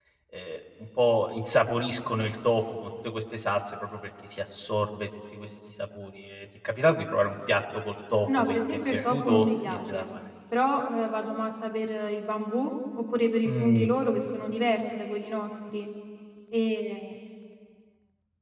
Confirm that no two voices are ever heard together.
No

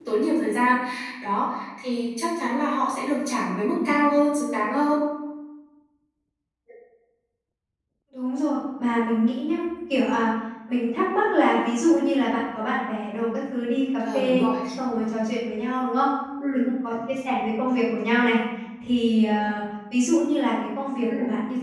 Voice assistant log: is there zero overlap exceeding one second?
Yes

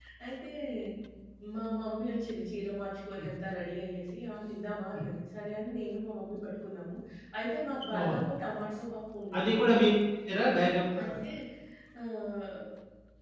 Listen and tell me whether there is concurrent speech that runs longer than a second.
No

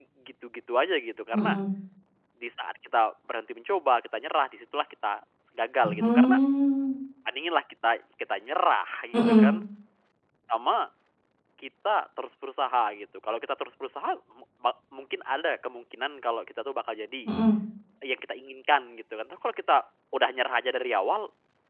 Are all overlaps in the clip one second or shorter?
Yes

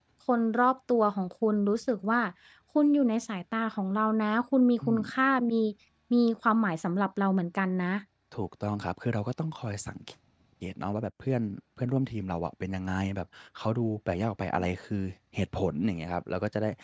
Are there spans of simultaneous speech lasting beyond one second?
No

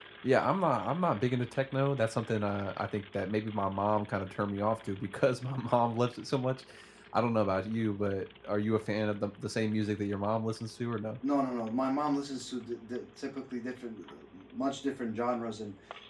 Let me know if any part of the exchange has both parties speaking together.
No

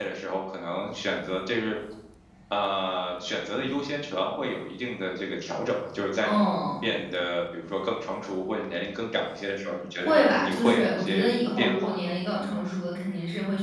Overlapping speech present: Yes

